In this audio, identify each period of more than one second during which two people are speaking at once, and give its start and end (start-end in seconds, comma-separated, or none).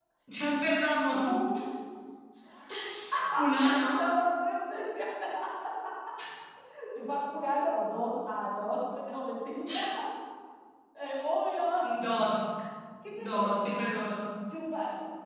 none